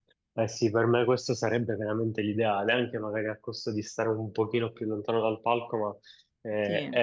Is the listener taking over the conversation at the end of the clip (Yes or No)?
No